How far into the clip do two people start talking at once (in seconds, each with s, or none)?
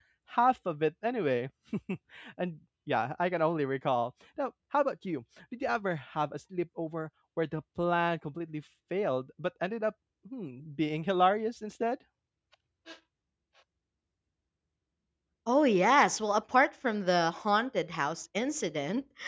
none